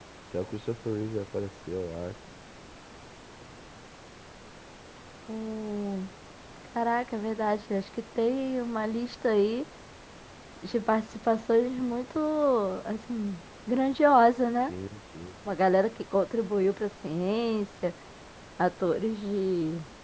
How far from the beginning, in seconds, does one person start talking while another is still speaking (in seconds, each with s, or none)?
none